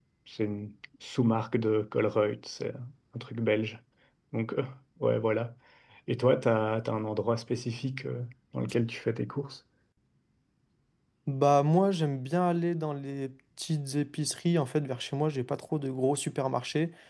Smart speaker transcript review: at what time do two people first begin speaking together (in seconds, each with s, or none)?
none